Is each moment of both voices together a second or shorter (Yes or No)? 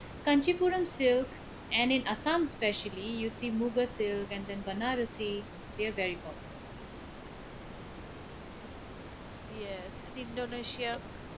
Yes